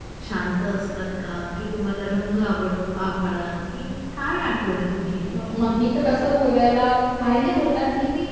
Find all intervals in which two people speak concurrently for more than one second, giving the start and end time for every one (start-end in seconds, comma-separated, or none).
none